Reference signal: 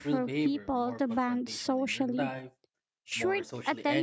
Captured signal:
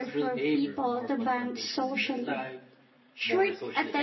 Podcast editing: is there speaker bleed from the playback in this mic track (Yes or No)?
Yes